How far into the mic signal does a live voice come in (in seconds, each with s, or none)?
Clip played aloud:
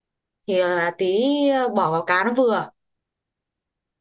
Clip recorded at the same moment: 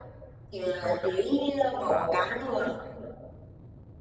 0.8 s